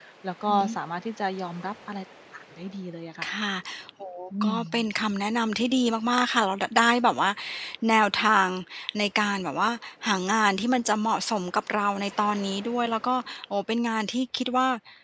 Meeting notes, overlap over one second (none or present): none